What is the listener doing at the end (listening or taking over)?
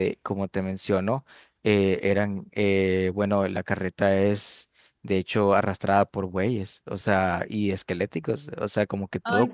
listening